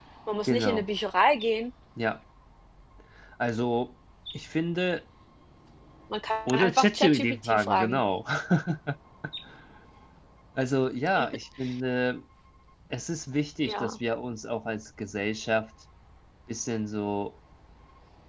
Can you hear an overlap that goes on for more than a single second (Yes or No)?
Yes